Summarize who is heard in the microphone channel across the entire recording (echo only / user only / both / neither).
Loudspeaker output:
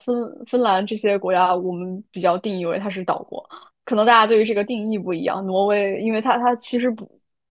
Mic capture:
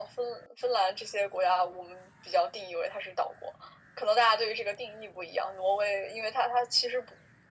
echo only